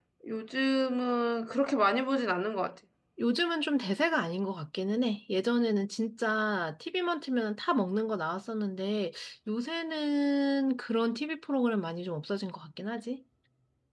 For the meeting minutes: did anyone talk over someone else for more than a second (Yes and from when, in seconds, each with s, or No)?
No